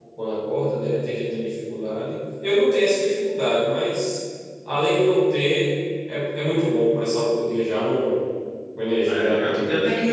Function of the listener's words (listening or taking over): taking over